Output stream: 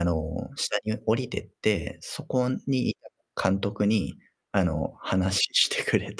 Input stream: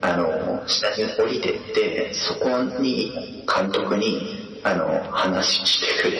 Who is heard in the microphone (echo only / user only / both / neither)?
echo only